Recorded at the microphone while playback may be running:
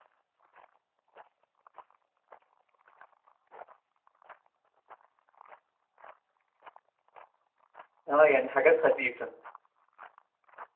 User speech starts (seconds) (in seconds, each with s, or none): 8.1 s